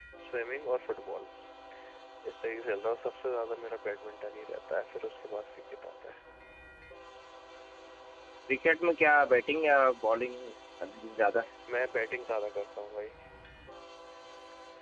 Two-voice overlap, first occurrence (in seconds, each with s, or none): none